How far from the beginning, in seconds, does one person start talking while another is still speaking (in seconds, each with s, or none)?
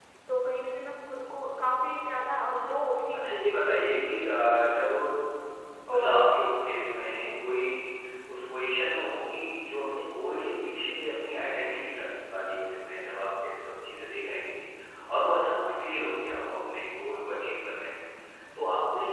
3.1 s